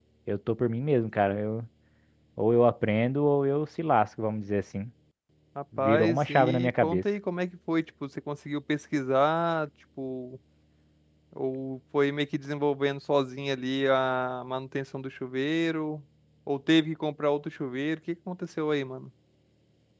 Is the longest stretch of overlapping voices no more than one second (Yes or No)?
No